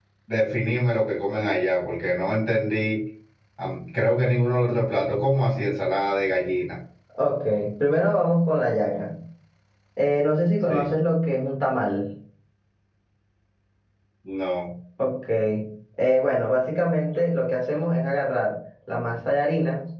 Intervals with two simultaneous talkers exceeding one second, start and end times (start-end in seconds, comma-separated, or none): none